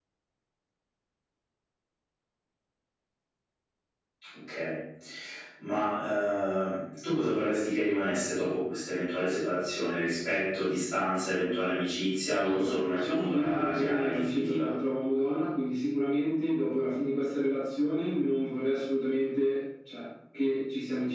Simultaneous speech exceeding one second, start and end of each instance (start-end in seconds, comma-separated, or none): 12.4-14.7